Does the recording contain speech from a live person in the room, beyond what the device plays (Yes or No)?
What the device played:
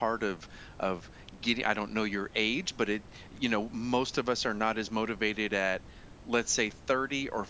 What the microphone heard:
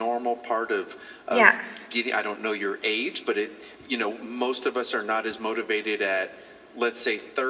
Yes